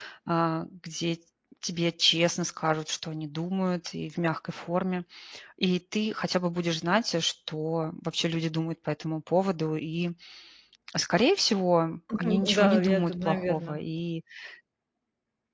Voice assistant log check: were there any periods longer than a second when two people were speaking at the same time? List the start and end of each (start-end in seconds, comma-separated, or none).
12.2-13.8